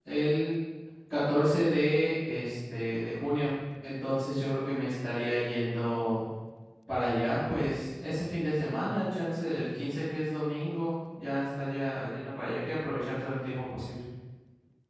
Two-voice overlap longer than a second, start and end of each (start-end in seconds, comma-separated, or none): none